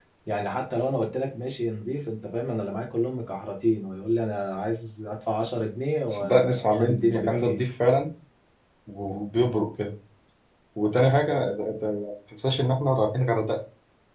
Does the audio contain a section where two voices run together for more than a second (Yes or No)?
Yes